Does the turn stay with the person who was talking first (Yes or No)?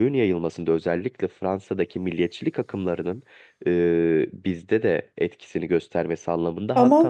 Yes